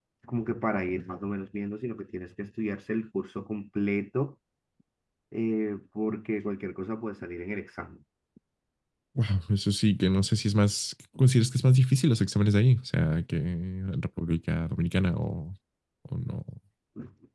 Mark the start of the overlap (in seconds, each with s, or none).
none